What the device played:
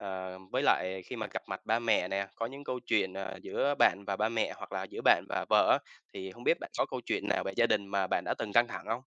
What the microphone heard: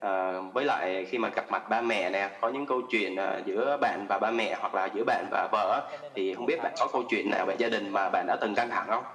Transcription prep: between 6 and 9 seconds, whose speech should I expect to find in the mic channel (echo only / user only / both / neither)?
both